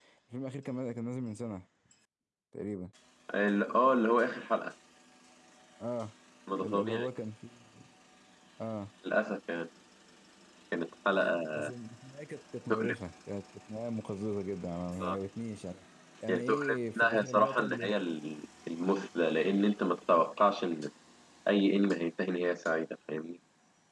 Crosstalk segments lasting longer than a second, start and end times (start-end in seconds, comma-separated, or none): 16.3-17.9